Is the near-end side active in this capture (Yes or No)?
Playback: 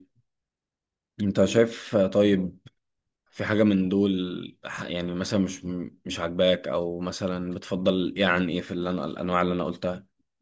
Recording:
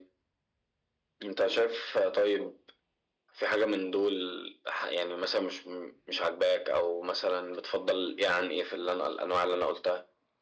No